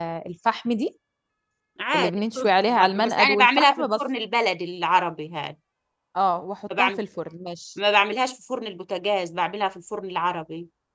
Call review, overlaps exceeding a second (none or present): present